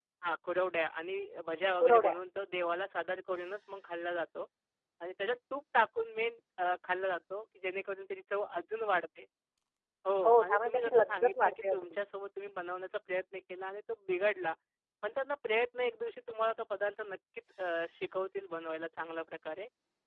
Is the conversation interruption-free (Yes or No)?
No